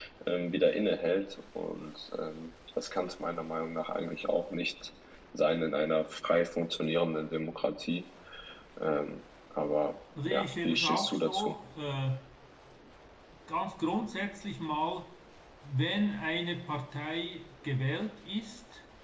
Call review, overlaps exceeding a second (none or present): present